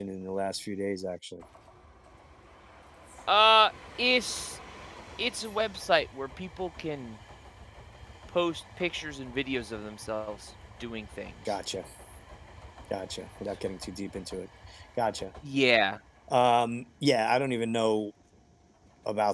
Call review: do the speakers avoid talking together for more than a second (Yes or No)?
Yes